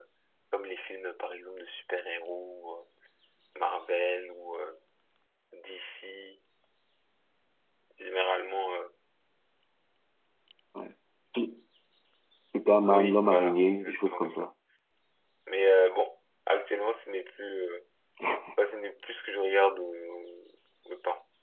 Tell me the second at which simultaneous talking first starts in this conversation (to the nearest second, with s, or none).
13 s